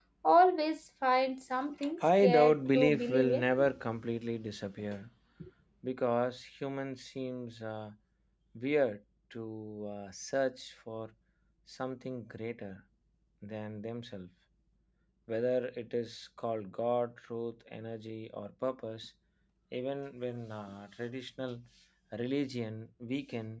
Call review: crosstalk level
present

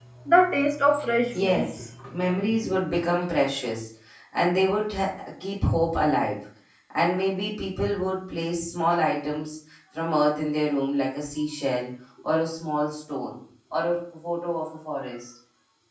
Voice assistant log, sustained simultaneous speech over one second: none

